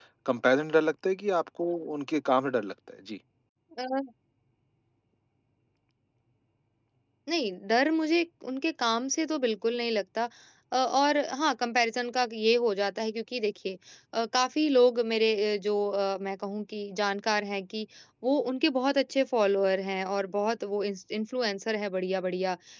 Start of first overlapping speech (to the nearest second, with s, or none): none